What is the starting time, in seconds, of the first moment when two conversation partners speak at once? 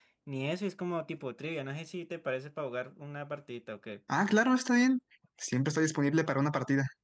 none

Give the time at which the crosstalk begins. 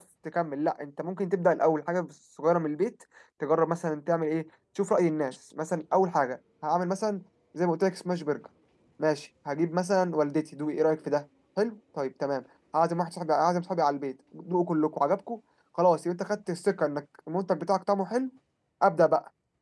none

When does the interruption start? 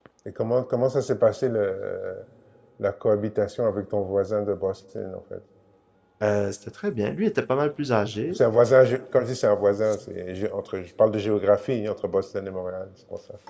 none

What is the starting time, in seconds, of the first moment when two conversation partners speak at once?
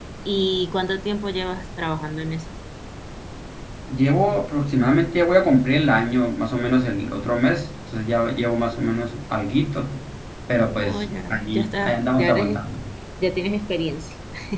11 s

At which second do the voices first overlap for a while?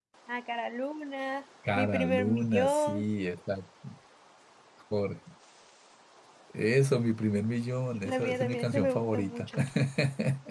2 s

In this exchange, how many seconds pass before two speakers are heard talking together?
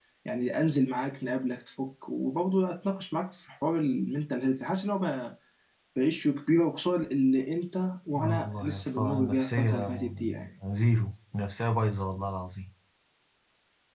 8 s

